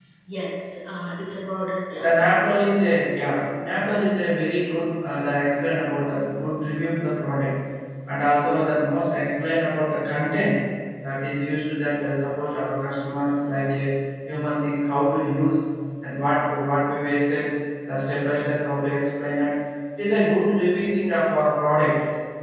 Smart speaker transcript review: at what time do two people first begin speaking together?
none

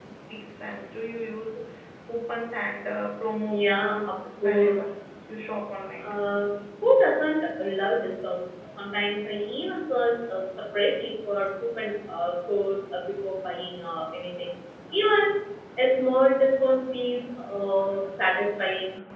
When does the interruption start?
3.5 s

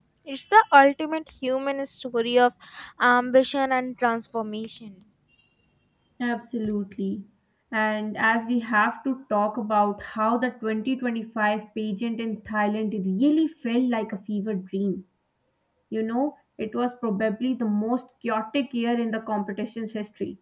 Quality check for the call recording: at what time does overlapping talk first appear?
none

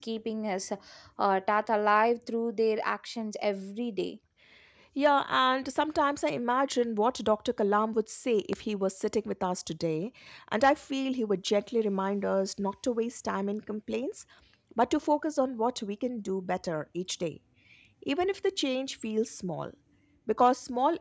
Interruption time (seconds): none

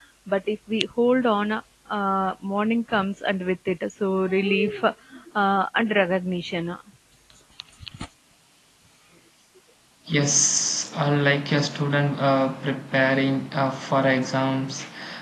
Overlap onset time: none

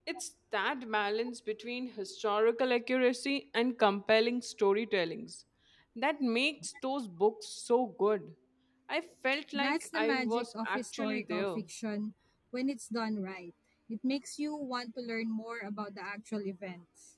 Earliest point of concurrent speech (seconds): 9.6 s

